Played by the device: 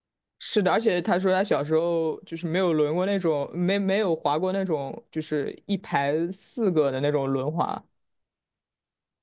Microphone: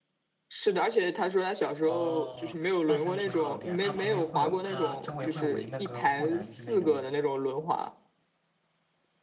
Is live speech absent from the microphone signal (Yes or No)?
No